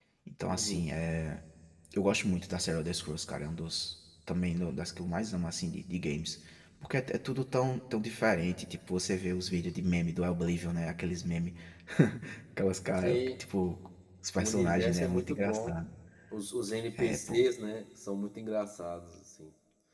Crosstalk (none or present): present